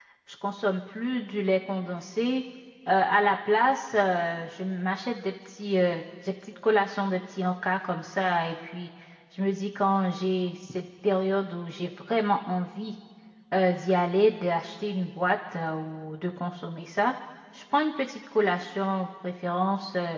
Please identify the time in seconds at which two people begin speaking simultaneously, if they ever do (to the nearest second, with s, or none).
none